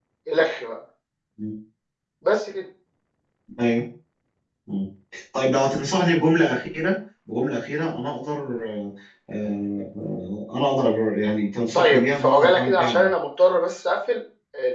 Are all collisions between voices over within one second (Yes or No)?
No